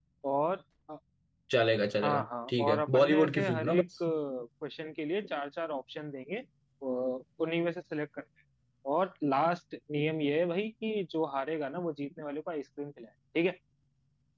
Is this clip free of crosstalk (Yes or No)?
No